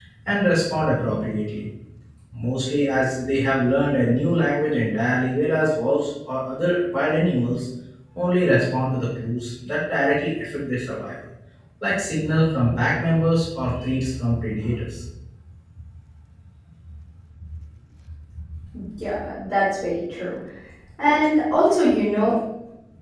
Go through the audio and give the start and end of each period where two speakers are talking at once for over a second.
none

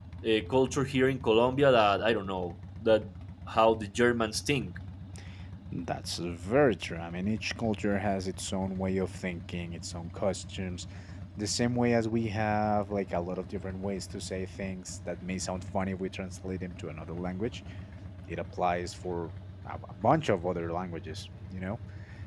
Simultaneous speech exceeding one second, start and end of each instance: none

